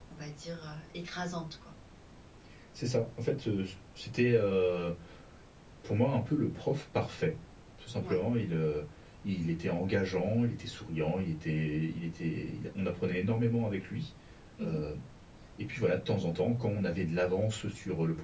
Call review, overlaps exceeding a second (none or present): none